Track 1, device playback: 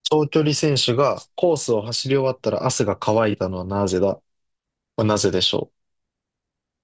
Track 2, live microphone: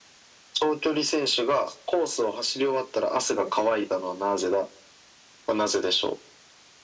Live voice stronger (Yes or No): No